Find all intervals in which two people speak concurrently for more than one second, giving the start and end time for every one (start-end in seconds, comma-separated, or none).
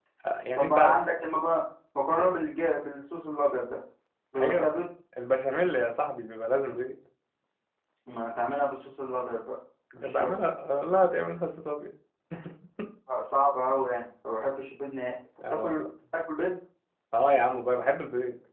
none